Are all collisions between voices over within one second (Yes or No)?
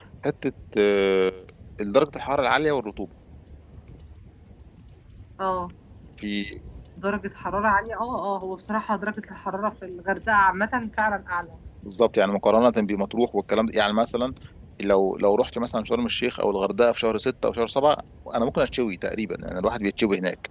Yes